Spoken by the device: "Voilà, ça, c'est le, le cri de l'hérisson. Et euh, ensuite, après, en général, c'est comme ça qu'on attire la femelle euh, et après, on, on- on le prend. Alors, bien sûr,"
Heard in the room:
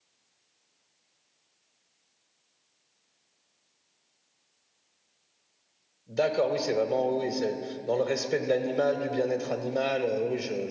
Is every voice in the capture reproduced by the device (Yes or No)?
No